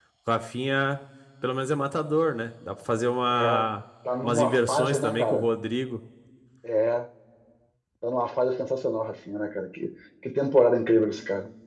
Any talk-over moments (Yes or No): Yes